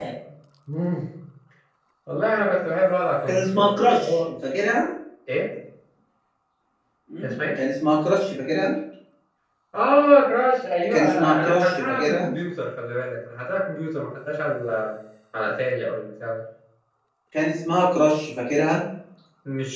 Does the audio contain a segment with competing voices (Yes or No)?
Yes